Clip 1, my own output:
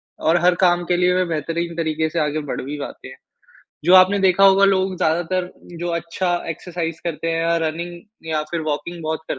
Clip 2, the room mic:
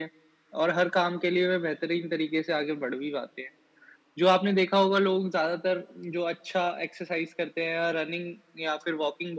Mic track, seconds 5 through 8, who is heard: echo only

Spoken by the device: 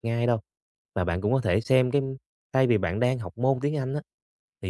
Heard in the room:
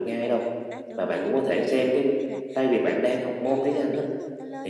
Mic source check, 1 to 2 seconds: both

